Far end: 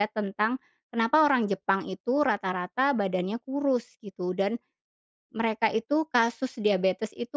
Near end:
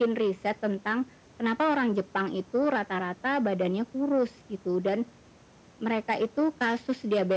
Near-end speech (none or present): none